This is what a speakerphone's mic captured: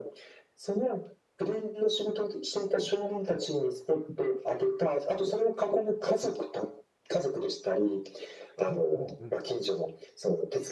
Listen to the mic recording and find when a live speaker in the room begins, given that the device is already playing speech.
8.7 s

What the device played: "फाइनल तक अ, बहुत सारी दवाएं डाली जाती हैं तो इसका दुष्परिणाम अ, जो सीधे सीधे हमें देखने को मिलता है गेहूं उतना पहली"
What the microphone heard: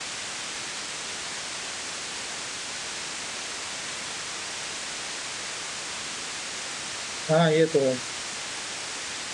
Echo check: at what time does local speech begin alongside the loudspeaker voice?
7.3 s

